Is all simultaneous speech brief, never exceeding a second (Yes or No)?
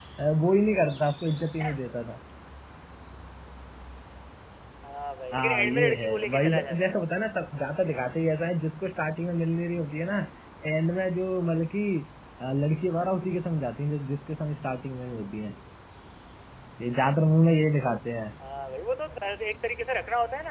No